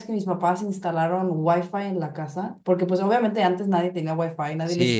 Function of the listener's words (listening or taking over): taking over